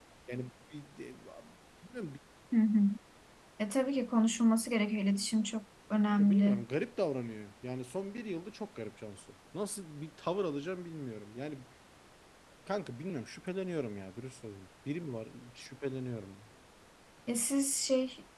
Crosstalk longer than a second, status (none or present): none